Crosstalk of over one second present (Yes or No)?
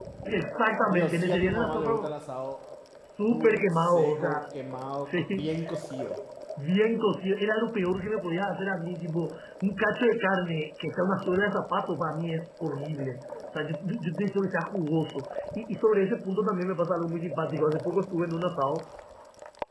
Yes